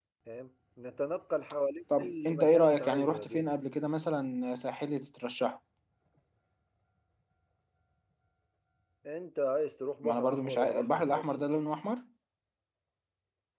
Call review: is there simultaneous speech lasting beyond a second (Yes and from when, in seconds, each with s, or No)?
Yes, from 2.0 s